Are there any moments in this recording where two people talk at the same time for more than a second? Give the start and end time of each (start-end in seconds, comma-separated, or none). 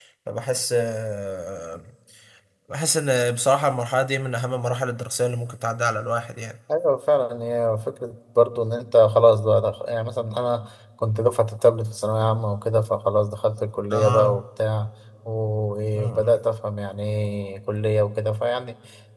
none